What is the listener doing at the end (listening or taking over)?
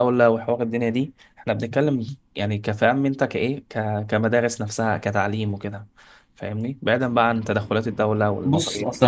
taking over